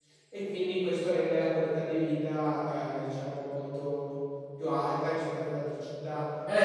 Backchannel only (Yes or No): No